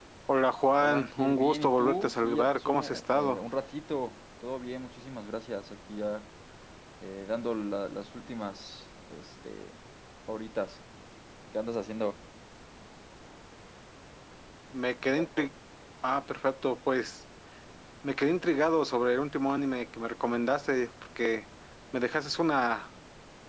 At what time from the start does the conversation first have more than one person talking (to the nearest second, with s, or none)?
1 s